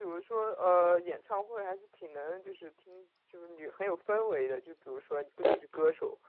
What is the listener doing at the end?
listening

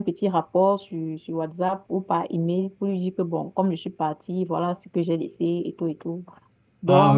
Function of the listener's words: listening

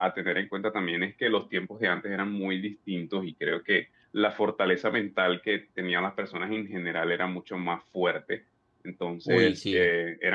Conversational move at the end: listening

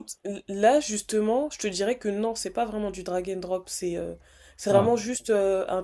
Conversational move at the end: listening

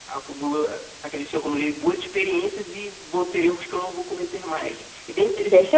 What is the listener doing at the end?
taking over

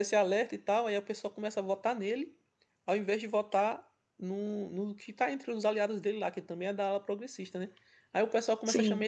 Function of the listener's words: listening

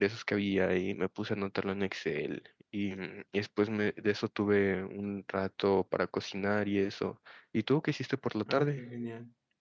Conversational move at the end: taking over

